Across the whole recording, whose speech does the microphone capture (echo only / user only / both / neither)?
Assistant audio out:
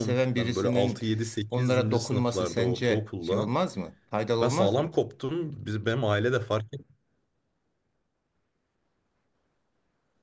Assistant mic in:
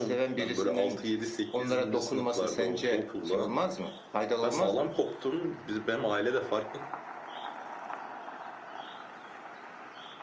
echo only